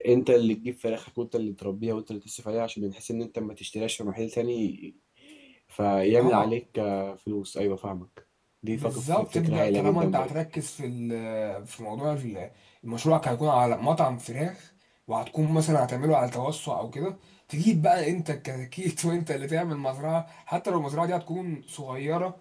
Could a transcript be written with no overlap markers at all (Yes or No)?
No